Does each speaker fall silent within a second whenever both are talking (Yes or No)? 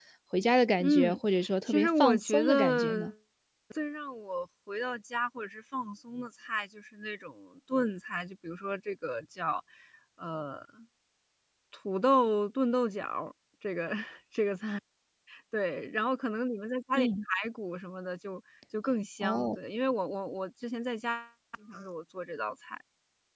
No